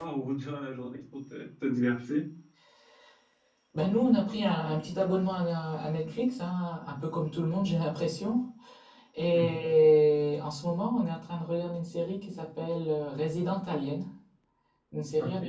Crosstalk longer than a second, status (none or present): none